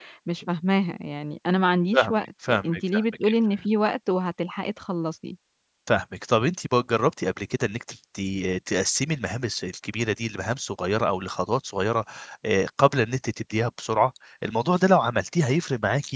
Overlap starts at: 1.9 s

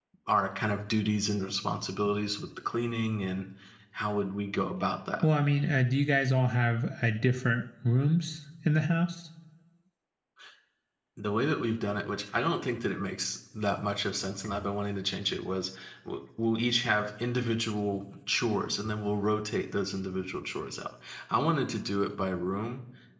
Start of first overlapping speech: none

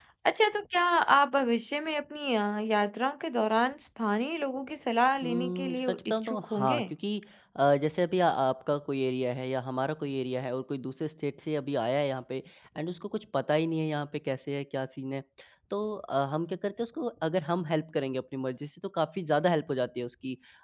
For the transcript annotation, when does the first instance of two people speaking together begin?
5.2 s

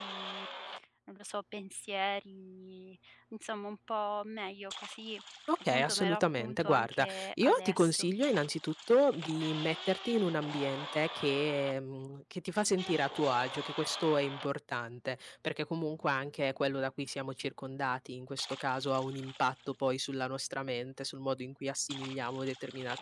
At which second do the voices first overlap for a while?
5.7 s

